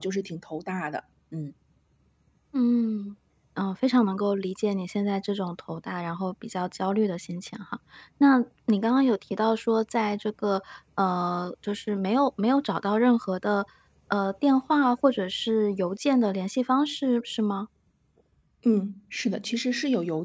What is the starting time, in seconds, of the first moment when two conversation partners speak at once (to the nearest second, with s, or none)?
none